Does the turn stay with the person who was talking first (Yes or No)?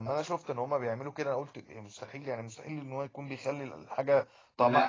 Yes